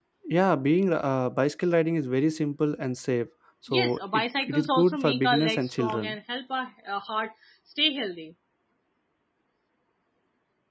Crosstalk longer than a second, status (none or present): present